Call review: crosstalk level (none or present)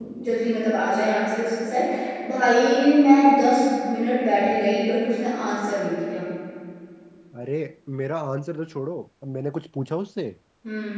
none